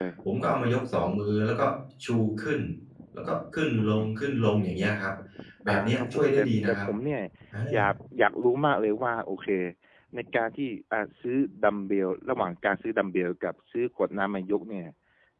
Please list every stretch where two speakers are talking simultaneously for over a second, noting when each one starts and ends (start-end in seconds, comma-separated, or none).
5.7-6.9